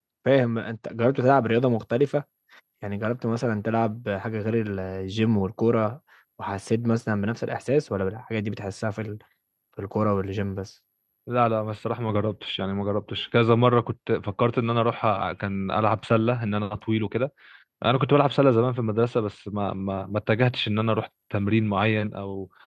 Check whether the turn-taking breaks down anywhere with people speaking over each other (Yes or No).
No